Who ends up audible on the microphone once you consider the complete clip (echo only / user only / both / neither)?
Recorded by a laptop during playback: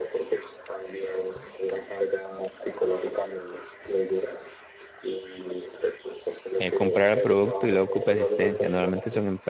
both